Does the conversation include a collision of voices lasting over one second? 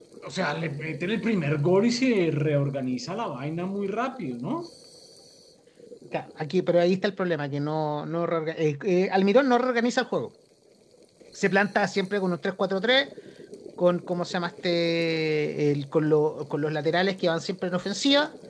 No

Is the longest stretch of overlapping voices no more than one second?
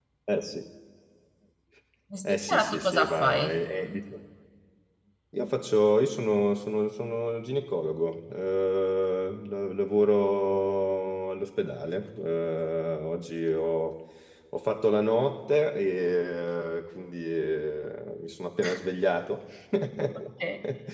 No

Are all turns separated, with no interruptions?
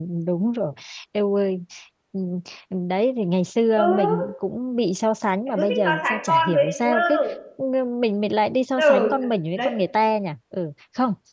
No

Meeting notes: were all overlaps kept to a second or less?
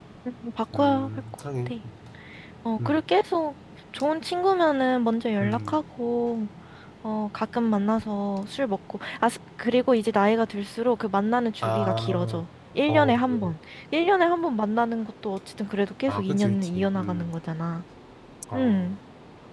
No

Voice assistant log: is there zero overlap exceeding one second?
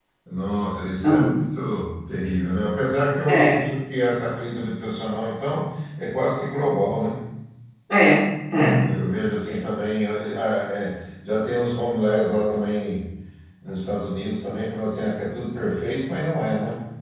Yes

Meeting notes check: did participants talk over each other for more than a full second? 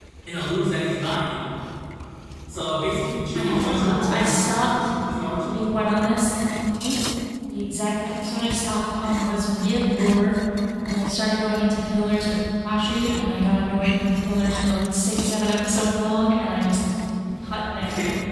Yes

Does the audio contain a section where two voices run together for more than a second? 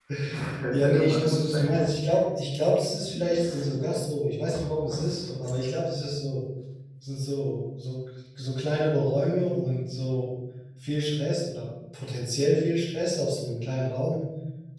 Yes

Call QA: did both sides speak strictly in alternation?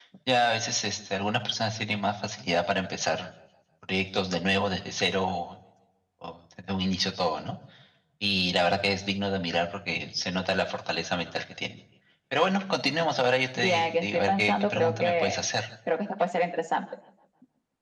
No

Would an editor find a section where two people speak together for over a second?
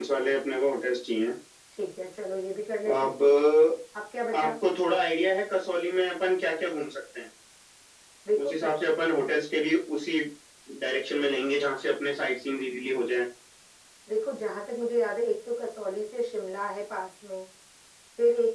No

